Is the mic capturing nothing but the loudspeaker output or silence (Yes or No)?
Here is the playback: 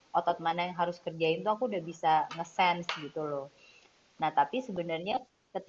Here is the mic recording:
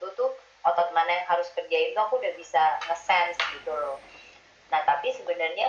Yes